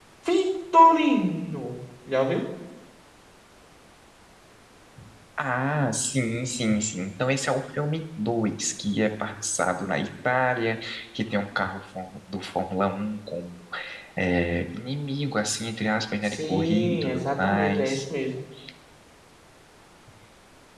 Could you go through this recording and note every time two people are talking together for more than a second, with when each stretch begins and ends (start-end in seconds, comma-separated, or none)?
16.2-18.0